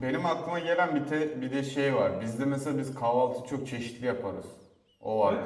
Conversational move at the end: taking over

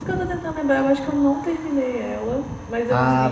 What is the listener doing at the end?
taking over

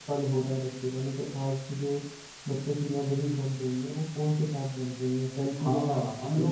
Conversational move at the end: taking over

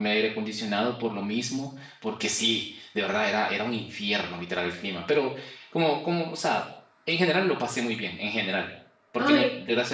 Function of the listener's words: listening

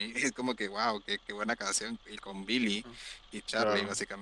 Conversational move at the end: listening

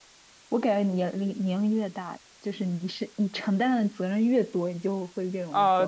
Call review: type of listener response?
taking over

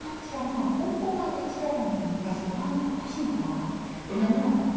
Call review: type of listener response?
listening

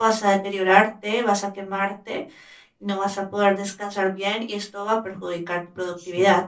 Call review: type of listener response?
taking over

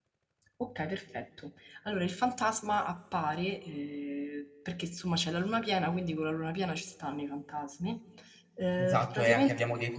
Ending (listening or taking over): taking over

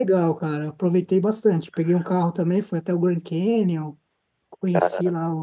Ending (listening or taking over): listening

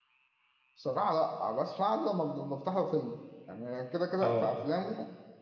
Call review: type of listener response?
listening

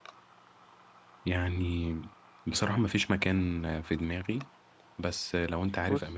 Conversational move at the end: listening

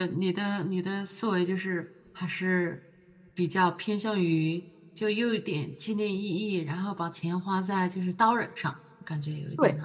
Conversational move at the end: taking over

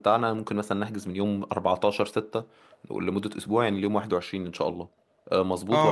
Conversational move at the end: taking over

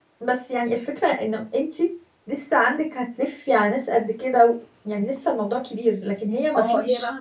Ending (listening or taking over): taking over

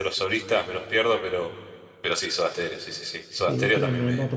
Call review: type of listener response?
taking over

